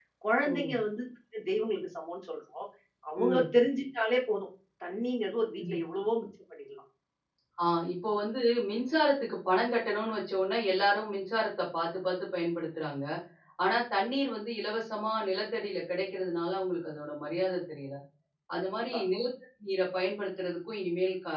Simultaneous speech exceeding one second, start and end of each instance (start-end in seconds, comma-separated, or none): none